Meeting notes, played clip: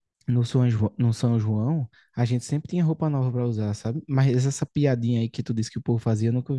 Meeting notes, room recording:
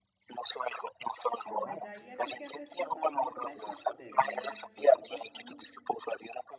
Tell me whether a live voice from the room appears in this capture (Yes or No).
Yes